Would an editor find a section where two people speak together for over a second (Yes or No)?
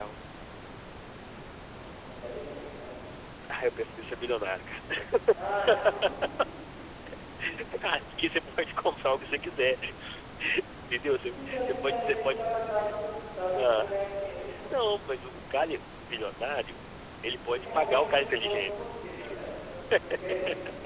Yes